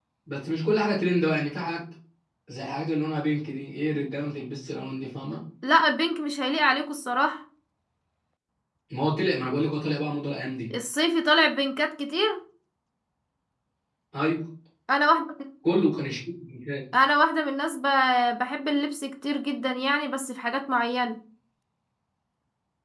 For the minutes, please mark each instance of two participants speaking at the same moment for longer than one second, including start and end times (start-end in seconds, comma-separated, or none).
none